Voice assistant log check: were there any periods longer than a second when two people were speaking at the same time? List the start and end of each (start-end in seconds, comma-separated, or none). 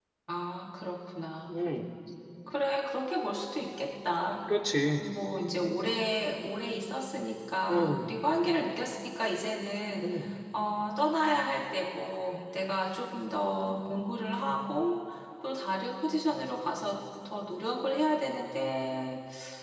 none